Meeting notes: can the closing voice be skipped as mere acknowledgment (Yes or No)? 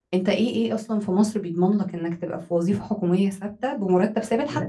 Yes